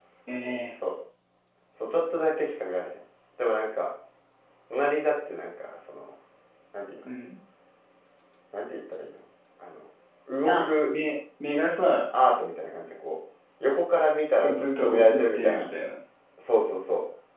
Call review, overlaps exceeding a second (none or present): present